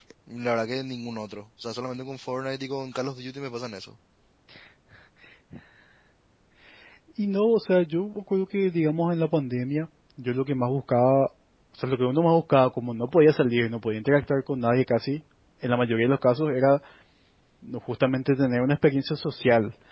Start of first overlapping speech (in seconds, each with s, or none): none